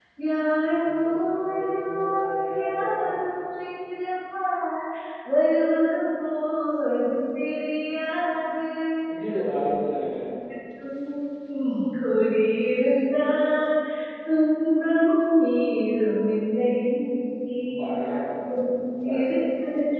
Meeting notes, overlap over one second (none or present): present